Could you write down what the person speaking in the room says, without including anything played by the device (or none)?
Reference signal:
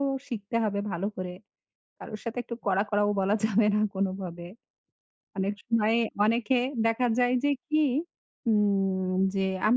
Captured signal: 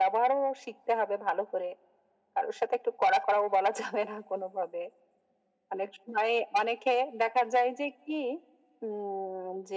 none